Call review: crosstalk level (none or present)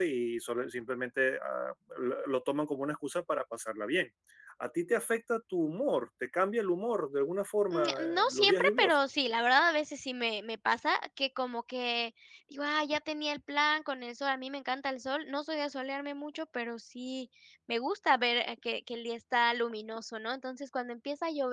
present